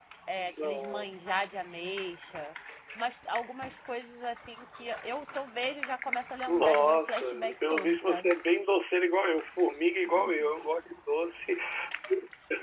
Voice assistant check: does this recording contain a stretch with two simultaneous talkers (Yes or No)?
Yes